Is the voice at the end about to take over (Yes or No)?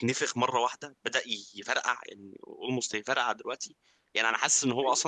No